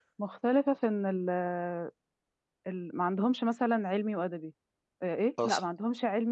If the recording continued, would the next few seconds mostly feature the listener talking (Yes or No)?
No